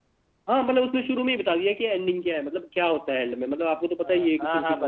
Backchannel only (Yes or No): No